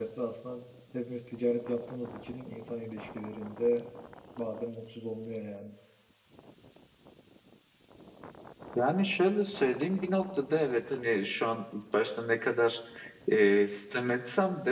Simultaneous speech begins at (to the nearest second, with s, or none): none